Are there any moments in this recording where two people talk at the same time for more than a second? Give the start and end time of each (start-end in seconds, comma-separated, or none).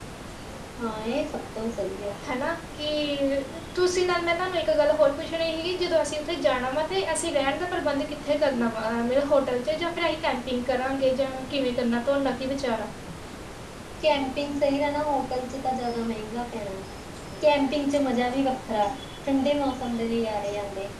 none